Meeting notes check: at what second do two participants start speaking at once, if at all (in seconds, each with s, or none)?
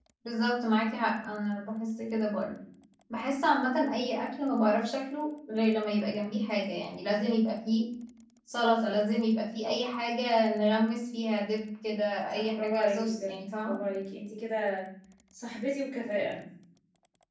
12.3 s